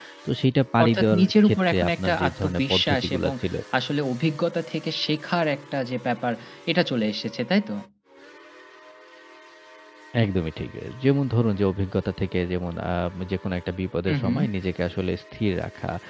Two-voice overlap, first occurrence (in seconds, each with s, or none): 0.8 s